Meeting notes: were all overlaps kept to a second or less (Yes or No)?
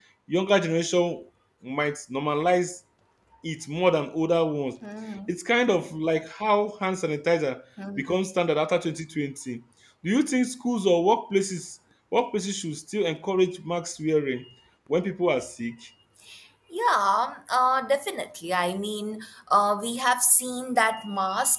Yes